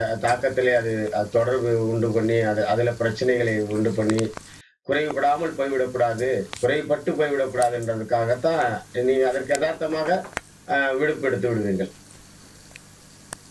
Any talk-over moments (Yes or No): No